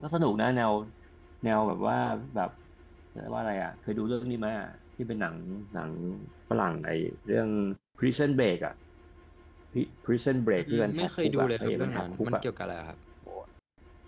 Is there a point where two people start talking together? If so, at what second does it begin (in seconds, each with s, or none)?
10.6 s